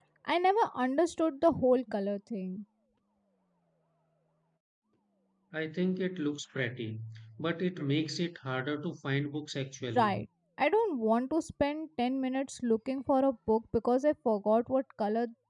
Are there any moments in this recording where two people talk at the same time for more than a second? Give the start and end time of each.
none

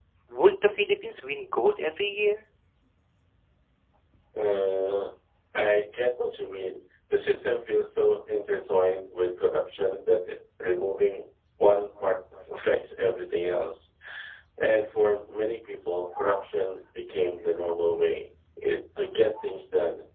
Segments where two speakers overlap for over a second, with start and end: none

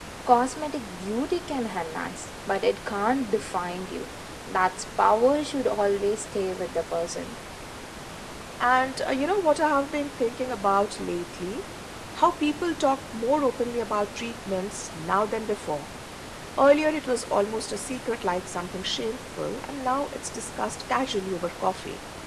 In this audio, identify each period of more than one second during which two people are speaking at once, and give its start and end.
none

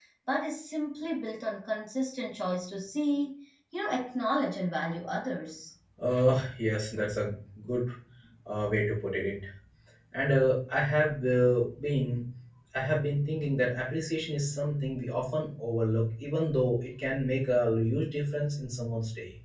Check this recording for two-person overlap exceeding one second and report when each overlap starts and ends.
none

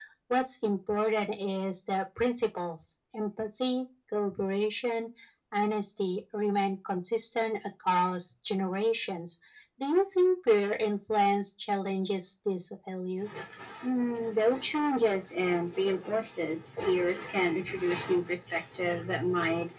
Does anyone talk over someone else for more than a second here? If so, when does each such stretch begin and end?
none

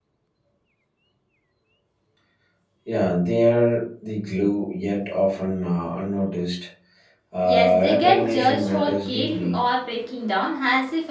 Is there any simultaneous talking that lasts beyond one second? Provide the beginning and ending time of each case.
7.5-9.6

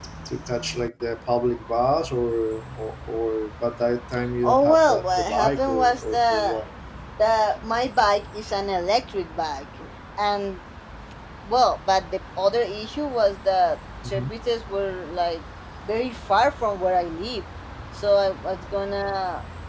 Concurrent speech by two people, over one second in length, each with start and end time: 4.4-6.6

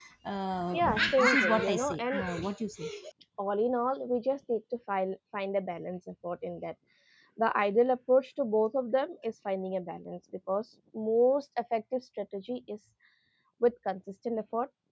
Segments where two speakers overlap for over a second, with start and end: 0.7-2.2

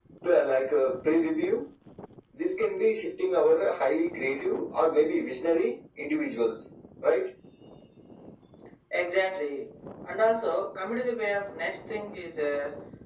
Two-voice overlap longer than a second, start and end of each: none

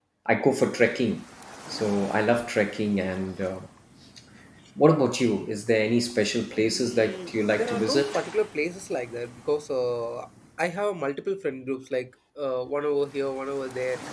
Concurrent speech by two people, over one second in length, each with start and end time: 6.5-8.0

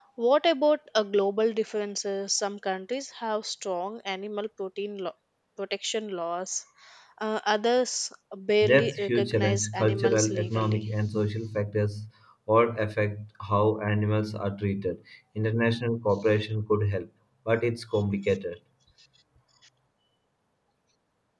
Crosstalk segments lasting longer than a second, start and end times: 8.6-10.8

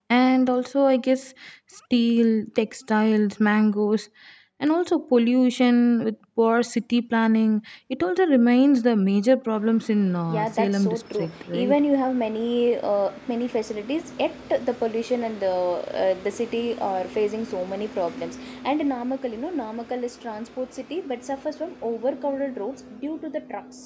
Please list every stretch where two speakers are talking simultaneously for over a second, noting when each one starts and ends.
10.3-11.8

